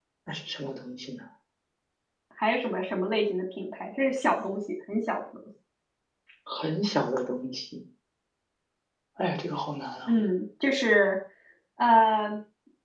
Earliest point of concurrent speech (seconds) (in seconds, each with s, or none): none